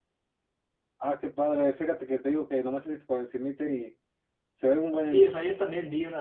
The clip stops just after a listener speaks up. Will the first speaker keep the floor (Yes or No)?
No